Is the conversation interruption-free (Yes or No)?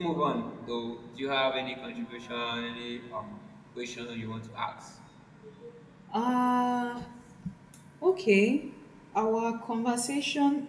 Yes